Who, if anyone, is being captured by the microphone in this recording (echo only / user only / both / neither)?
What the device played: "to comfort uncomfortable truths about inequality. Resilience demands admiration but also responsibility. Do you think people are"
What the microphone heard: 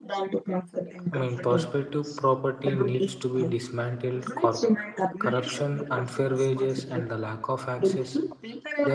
both